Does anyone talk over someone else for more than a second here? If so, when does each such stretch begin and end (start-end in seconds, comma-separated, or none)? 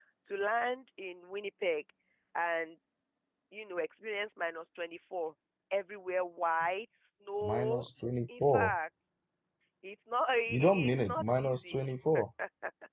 10.5-11.9